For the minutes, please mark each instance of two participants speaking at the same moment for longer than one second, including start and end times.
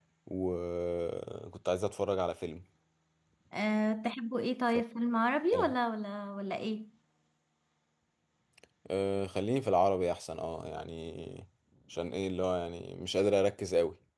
none

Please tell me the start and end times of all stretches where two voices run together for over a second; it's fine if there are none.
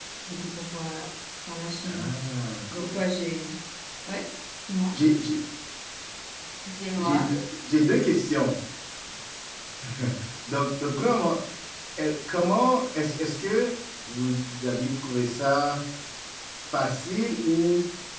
none

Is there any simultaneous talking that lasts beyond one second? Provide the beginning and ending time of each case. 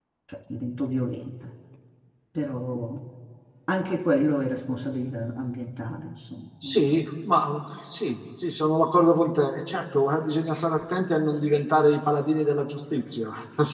none

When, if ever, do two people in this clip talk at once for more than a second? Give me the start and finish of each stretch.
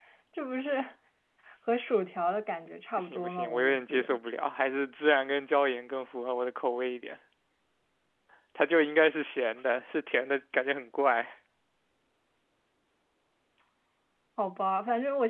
3.0-4.2

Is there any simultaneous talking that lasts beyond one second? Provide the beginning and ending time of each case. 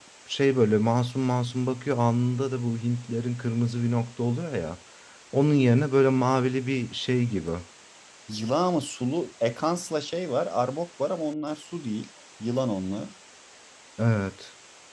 none

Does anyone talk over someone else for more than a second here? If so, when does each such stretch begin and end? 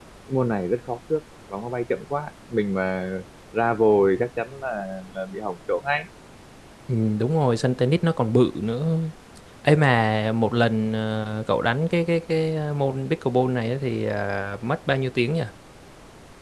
none

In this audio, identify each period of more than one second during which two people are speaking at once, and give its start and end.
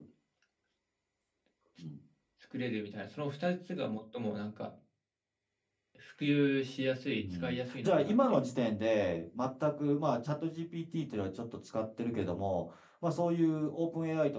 7.2-8.4

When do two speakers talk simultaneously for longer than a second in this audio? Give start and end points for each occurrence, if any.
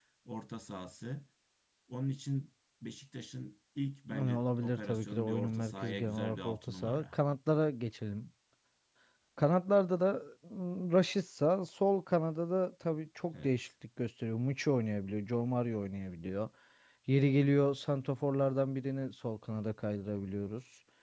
4.1-7.2

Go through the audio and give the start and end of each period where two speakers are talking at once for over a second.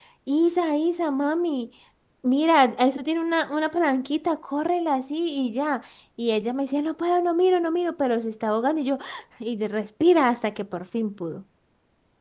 none

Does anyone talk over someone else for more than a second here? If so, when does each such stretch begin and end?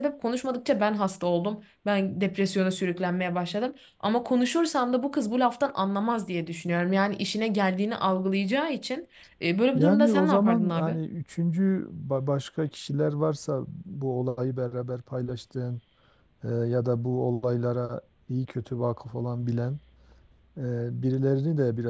9.7-11.0

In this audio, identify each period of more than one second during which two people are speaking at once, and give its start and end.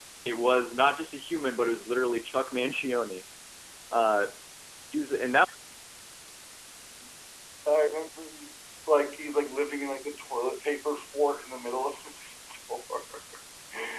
none

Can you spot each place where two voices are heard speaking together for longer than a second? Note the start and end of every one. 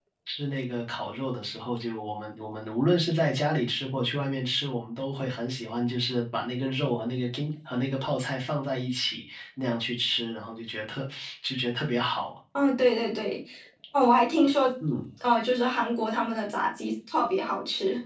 none

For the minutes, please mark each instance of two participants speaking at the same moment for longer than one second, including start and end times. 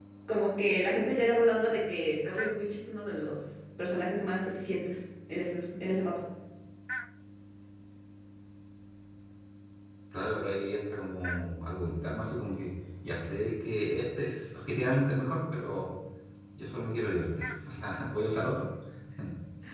none

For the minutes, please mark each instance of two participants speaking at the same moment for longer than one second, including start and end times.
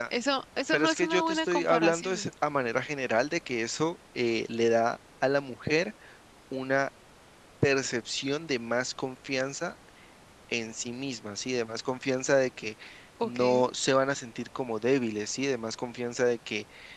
0.7-2.3

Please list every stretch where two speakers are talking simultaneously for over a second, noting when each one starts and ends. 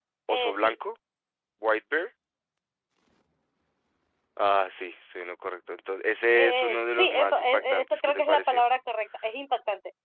6.3-8.6

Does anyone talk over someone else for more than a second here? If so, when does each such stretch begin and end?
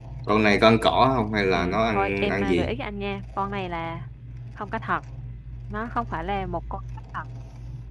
1.5-2.7

